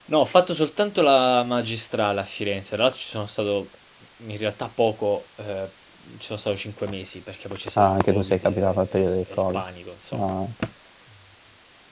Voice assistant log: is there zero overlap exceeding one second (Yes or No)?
No